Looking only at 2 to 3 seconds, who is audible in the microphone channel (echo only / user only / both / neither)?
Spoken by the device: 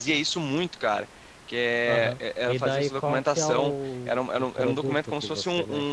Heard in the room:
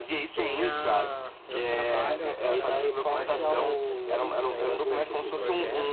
both